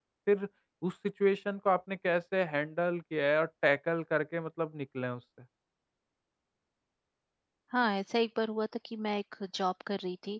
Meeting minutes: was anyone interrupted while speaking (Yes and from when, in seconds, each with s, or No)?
No